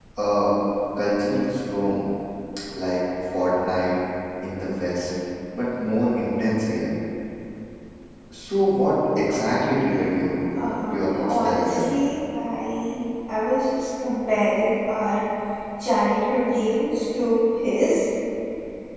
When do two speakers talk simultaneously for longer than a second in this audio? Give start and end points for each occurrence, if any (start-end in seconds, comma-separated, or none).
10.6-11.9